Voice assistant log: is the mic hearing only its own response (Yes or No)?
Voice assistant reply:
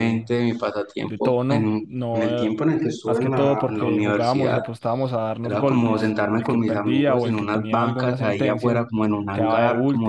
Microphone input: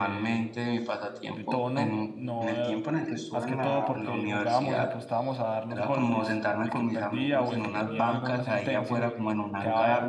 No